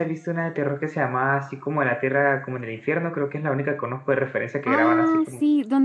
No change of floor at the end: No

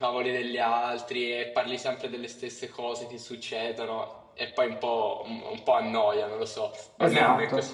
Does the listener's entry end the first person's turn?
Yes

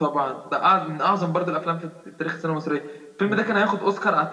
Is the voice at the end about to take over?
No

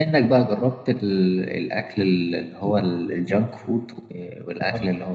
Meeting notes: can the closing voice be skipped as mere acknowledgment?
Yes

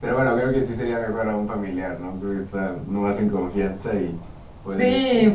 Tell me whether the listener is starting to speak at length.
Yes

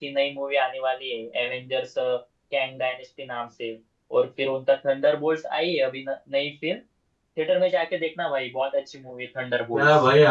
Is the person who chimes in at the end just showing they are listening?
No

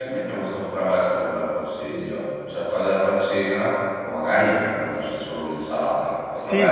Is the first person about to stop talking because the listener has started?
Yes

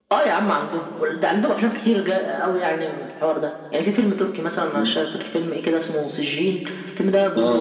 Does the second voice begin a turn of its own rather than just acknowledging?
Yes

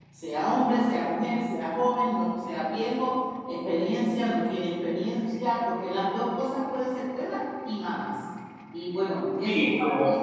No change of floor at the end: No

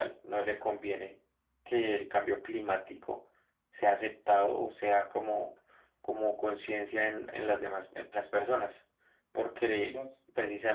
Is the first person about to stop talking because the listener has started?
No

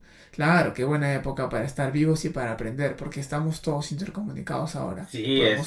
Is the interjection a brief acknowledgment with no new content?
No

